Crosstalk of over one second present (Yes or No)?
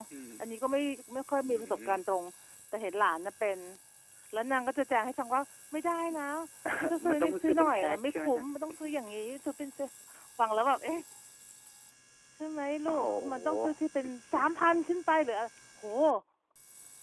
Yes